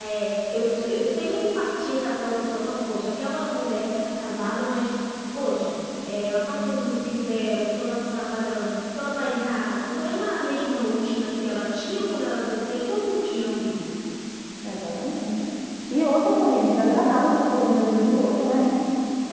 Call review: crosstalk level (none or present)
none